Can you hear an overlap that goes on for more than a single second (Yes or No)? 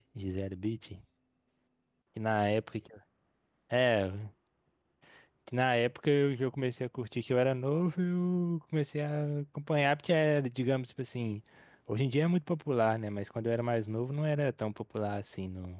No